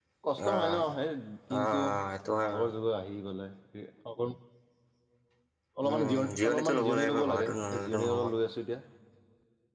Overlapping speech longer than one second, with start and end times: 5.9-8.2

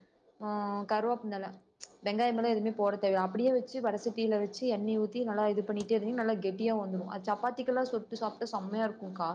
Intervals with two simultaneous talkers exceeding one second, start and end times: none

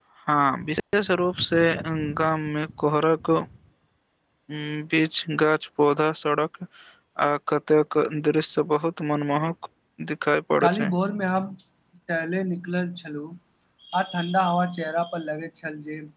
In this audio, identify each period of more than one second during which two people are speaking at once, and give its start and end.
none

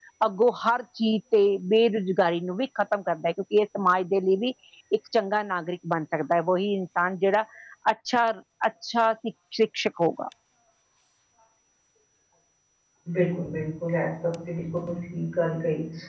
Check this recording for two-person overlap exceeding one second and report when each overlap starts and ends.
none

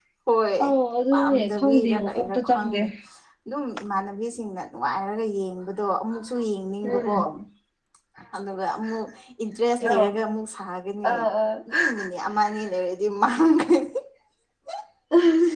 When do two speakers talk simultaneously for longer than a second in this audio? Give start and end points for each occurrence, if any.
1.1-2.8

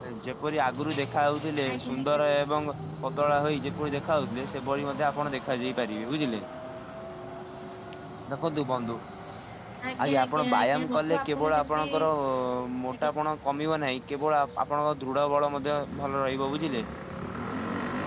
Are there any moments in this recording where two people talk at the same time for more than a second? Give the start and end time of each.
10.0-11.8

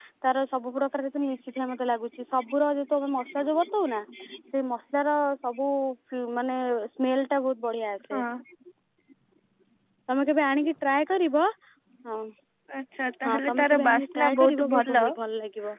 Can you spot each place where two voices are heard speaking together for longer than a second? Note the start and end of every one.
13.2-15.1

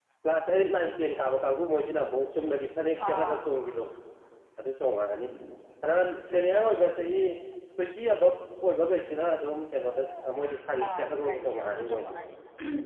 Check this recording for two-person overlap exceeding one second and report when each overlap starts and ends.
10.8-12.1

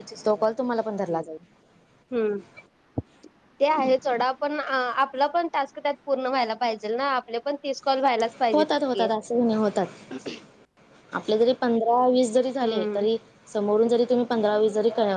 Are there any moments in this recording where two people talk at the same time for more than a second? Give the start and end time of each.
none

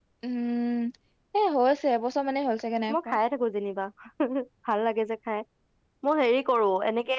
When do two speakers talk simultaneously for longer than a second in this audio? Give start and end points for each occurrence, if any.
none

